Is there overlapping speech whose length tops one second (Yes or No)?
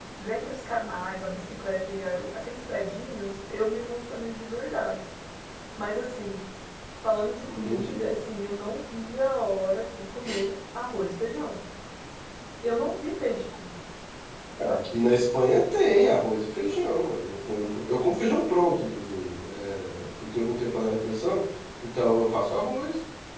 No